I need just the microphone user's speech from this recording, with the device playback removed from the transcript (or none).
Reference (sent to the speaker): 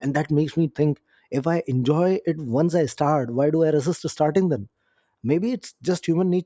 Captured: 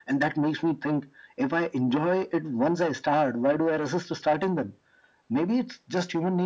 none